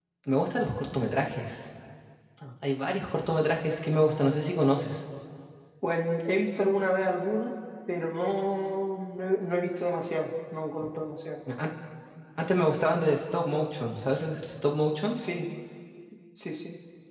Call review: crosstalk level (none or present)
none